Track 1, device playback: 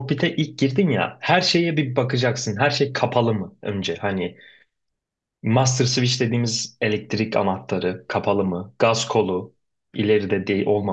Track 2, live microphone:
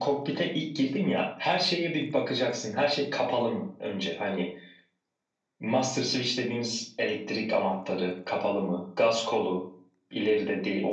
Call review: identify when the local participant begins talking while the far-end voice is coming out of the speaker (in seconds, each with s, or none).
none